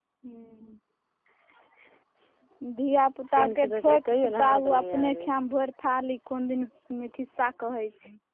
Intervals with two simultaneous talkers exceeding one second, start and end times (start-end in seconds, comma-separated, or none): 3.4-5.3